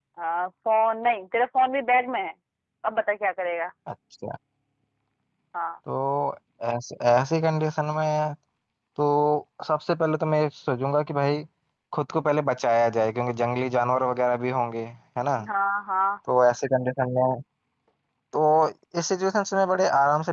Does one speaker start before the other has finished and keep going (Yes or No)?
No